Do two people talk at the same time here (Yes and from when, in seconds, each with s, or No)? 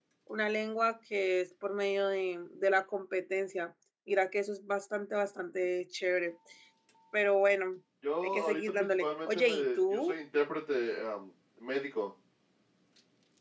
Yes, from 8.2 s